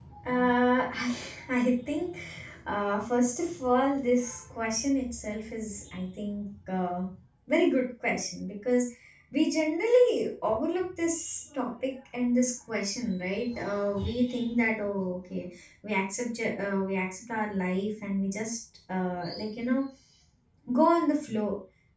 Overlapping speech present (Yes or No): No